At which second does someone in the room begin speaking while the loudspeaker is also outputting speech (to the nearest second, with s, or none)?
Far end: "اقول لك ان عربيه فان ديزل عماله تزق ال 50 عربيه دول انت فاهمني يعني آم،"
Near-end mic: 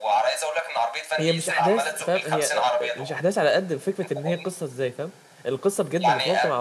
1 s